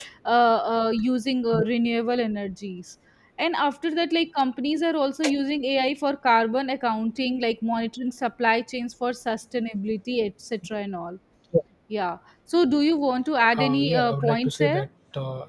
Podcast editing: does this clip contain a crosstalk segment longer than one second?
Yes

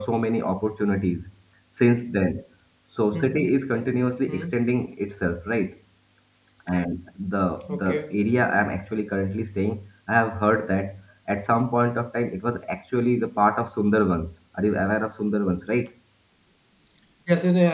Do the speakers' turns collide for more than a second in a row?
No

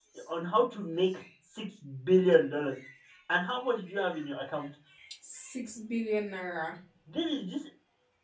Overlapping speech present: No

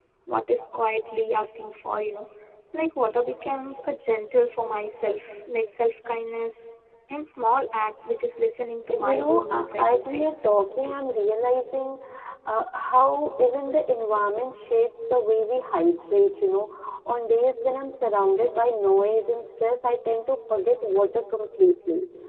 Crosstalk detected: Yes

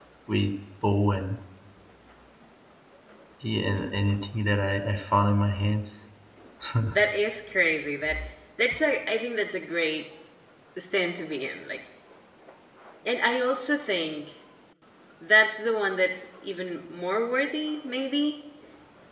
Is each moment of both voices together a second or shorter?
Yes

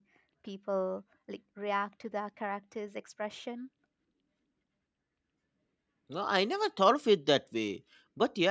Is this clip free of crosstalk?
Yes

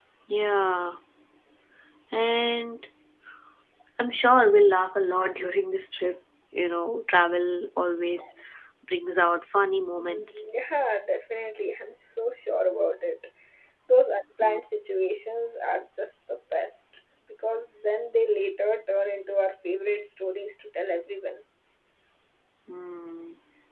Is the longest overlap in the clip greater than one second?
No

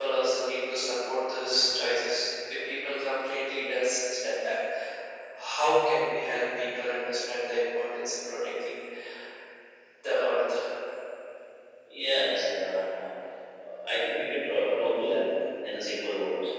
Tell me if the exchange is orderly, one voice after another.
Yes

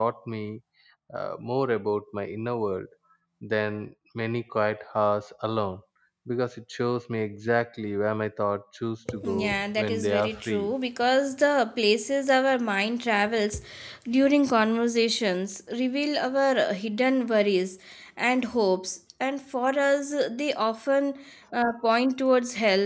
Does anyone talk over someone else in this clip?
Yes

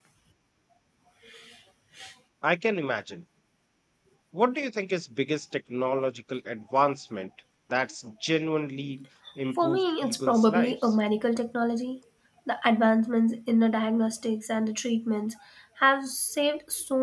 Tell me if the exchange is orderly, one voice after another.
No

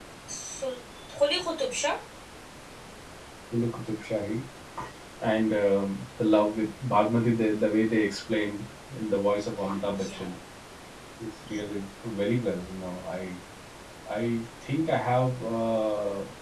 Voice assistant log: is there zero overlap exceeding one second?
Yes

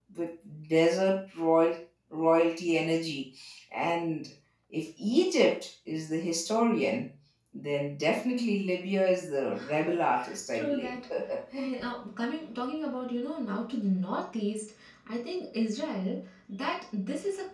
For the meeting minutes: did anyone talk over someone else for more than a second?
No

